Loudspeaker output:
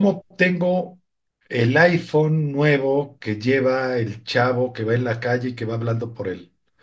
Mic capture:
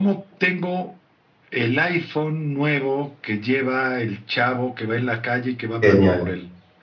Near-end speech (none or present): present